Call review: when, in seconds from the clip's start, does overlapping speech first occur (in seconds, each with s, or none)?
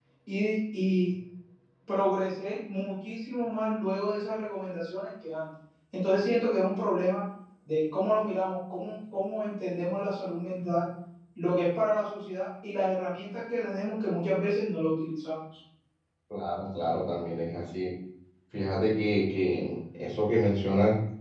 none